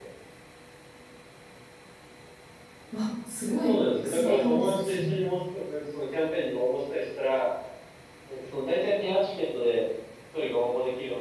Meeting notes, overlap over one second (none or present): present